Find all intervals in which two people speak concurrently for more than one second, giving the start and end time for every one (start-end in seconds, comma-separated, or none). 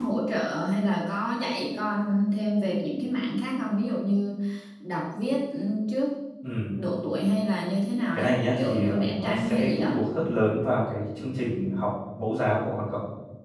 8.1-9.9